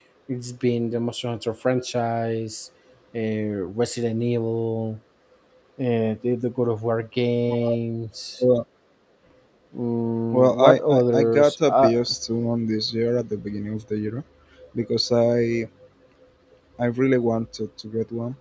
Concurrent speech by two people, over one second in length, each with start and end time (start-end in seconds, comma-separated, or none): 10.3-11.9